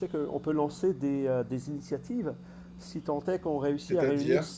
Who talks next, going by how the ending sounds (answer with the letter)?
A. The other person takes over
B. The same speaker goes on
B